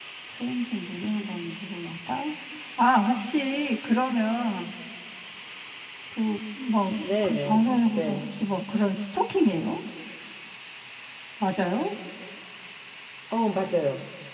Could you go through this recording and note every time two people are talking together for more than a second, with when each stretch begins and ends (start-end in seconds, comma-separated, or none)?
7.0-8.3